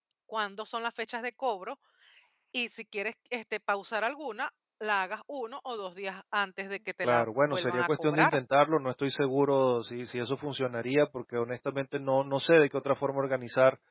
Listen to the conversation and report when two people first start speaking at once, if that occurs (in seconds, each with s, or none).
7.0 s